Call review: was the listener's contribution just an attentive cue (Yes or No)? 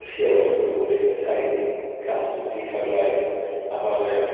Yes